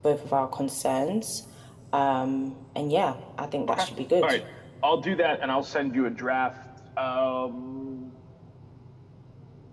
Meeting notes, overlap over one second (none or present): none